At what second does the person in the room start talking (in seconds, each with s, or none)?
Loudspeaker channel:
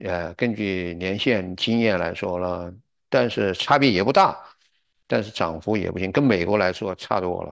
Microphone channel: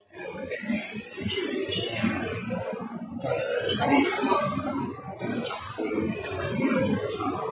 none